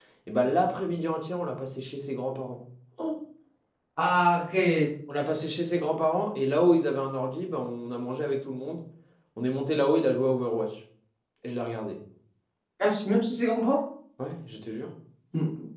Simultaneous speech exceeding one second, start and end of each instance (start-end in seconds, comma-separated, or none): none